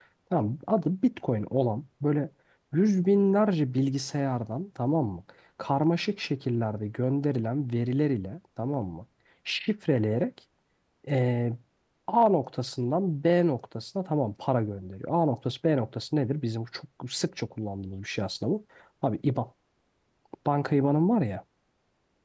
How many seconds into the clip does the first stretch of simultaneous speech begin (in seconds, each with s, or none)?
none